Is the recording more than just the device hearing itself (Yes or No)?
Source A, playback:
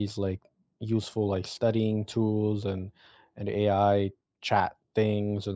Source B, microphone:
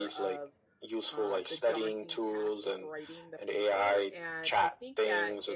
Yes